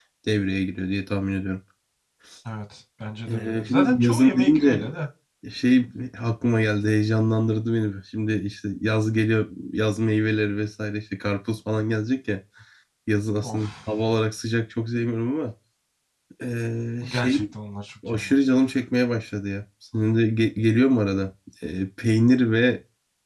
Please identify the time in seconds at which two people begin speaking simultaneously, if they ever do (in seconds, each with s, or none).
3.3 s